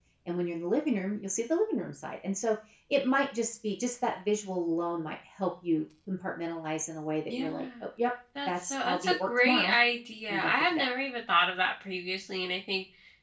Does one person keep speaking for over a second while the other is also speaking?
Yes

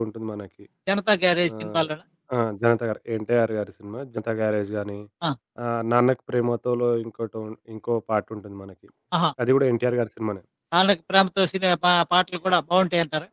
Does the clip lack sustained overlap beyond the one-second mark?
Yes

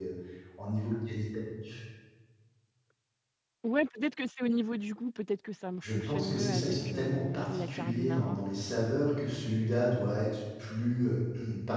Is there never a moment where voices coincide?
No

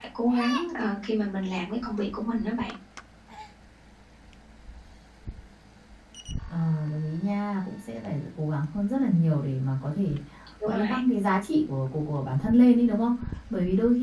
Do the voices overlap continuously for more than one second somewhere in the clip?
No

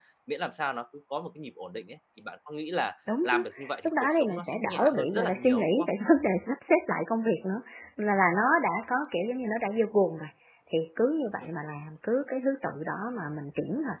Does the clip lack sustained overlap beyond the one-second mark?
No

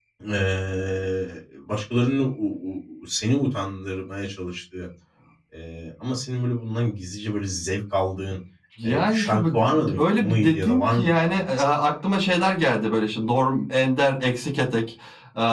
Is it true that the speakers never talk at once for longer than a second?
No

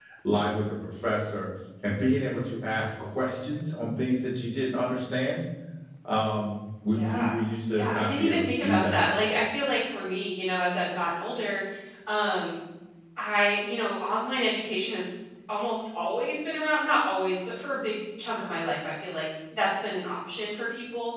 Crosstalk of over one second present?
Yes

